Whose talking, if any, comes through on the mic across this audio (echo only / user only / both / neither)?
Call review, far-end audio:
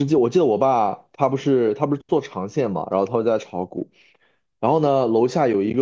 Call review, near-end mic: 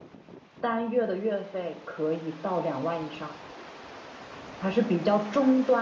user only